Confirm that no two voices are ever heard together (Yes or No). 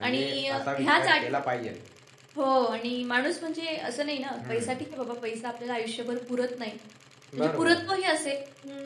No